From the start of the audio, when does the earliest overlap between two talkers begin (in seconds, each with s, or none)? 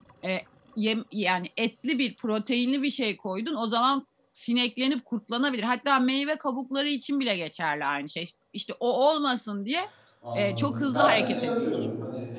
10.3 s